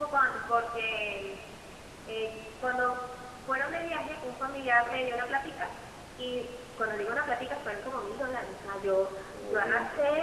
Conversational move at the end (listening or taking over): listening